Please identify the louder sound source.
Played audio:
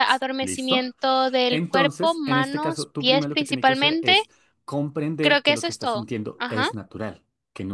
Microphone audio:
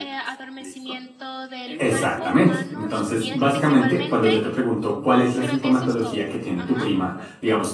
user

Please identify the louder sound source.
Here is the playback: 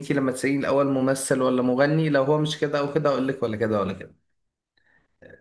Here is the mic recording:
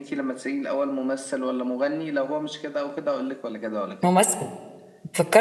user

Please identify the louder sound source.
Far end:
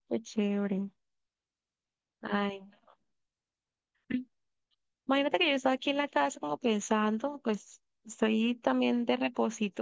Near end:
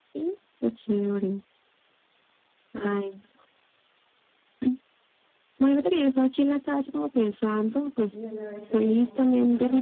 echo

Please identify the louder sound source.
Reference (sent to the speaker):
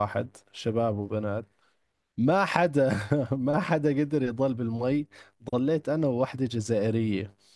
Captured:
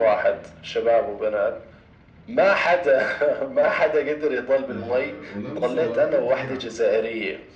echo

